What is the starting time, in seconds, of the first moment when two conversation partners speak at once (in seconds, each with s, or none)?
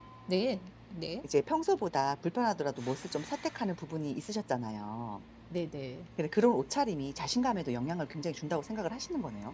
none